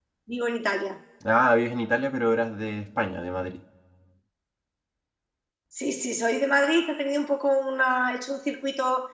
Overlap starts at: none

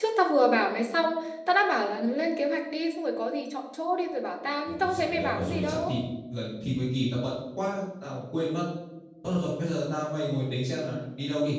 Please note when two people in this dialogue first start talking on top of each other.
4.7 s

